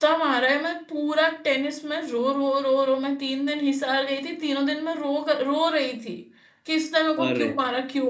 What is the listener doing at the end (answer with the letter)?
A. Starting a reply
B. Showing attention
B